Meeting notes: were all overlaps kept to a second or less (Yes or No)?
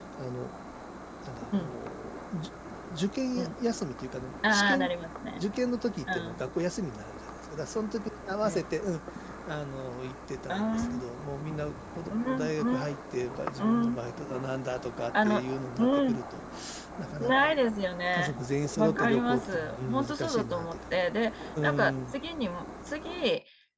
No